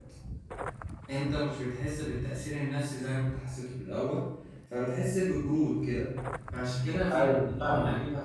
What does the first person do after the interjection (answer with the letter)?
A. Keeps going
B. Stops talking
A